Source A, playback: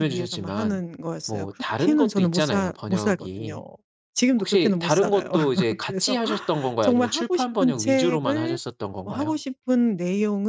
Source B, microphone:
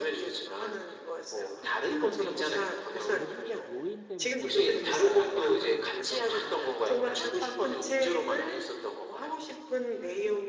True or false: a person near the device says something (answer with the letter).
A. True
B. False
A